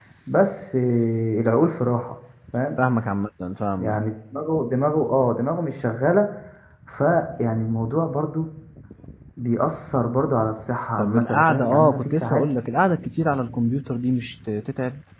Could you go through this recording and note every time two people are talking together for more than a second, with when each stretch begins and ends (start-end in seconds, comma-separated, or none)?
11.0-12.4